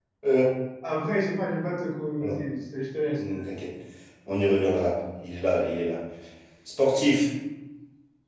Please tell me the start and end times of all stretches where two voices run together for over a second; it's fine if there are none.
none

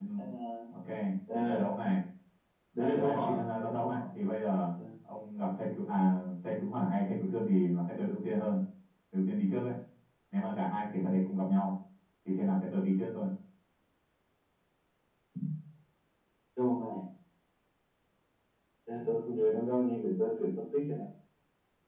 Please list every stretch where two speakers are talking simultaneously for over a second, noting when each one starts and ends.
2.7-4.0

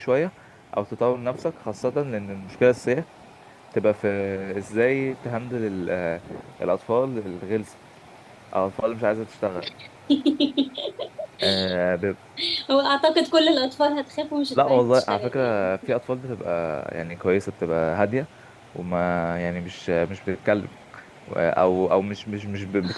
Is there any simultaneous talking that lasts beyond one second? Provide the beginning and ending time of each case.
14.5-15.7

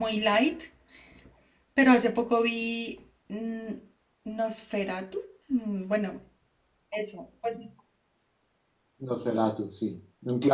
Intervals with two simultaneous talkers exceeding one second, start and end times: none

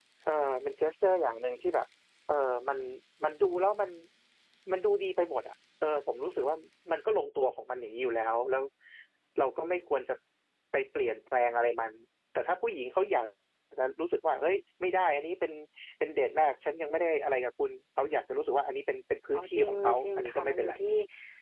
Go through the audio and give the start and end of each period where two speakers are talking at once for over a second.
19.3-20.7

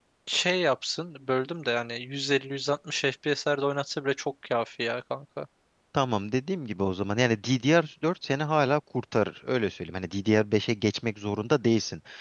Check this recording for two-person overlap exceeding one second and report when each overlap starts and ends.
none

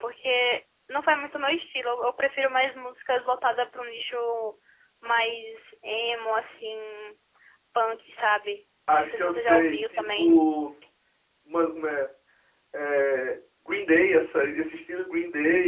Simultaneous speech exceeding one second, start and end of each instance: 9.0-10.4

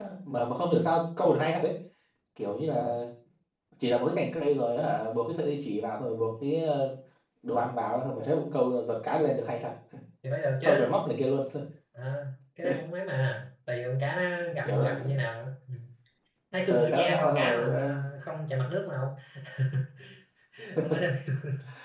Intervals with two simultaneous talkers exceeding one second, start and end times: 16.7-17.9

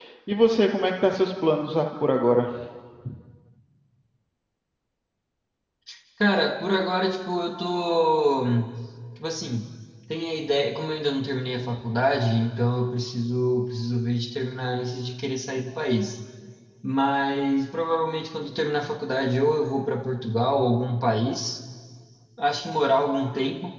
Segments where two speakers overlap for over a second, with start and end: none

